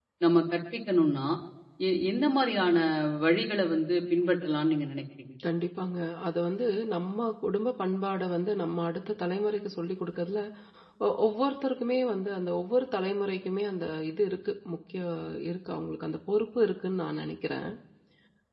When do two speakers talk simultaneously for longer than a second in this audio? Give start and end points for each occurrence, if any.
none

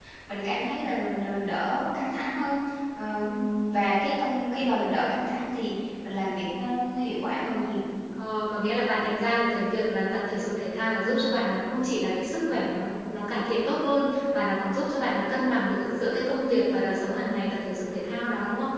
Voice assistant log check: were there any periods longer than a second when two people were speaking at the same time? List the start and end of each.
none

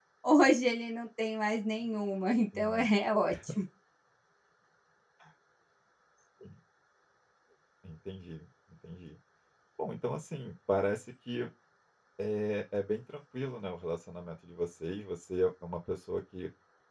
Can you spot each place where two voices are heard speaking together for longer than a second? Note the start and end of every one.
none

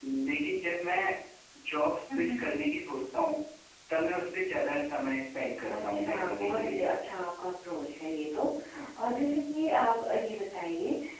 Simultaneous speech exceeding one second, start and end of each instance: 5.7-6.9

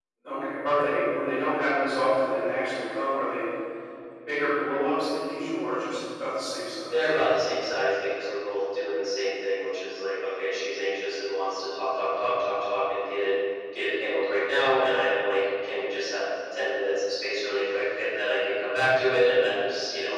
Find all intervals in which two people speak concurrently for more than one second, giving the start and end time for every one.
none

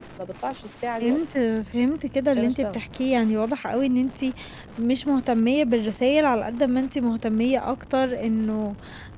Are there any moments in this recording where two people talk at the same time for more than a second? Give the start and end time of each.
none

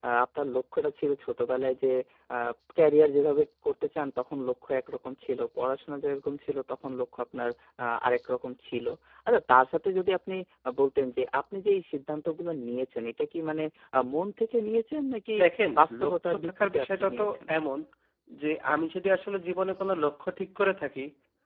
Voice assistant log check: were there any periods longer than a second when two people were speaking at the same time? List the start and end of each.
15.8-17.4

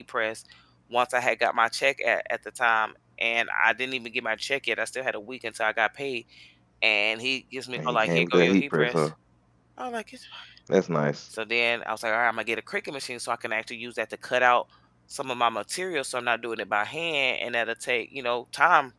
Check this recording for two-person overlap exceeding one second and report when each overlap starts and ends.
7.8-9.1

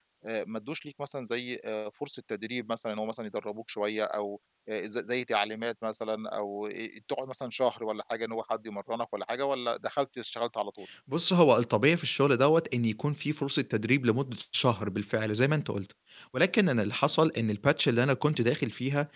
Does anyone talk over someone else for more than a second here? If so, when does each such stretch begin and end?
none

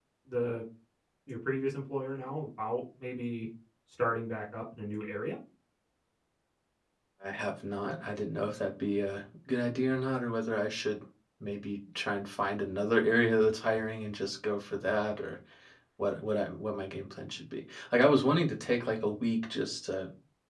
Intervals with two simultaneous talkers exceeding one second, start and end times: none

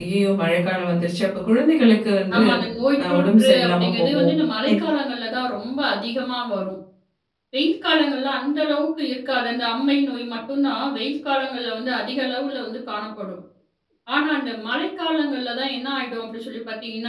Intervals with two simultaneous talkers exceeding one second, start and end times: 3.0-4.3

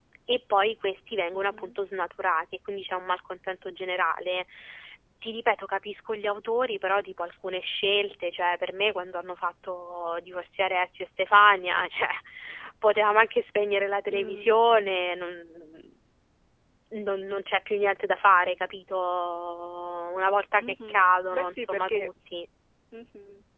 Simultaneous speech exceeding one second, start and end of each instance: 20.6-22.1

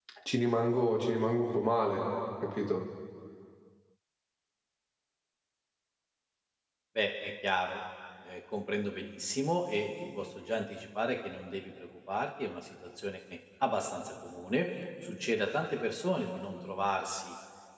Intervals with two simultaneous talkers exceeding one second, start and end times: none

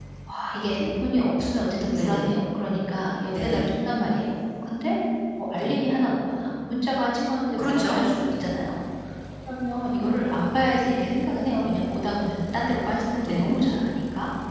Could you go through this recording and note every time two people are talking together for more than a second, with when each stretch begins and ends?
none

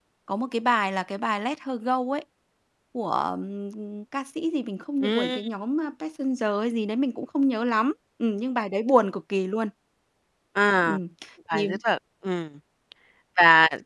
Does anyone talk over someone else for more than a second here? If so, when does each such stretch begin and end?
none

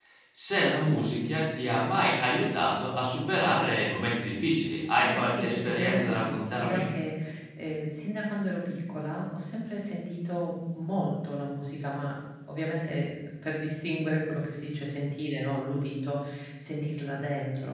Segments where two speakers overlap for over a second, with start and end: 5.0-6.8

